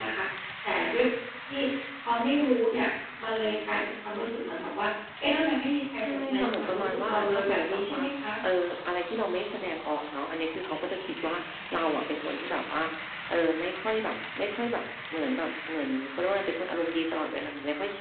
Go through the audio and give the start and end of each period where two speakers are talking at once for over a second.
6.0-8.0

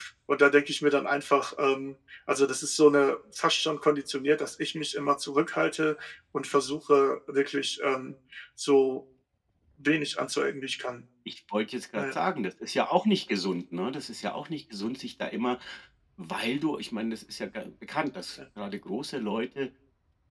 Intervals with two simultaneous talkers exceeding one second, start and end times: none

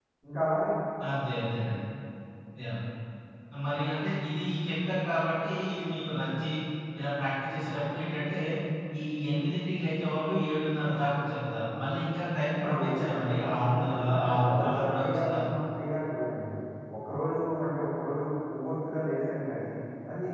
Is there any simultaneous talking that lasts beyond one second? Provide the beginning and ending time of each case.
12.6-15.4

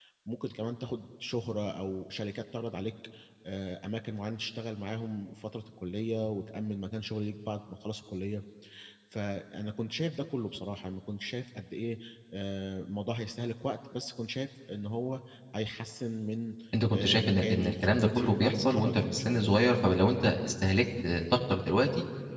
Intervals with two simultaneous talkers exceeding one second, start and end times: 16.9-19.6

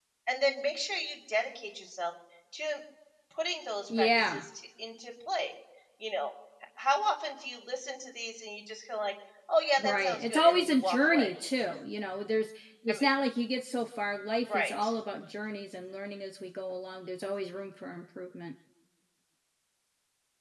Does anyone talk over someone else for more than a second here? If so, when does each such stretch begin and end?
9.8-11.3

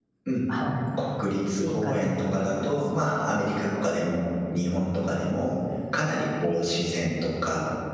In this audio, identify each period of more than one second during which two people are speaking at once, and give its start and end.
1.6-2.8

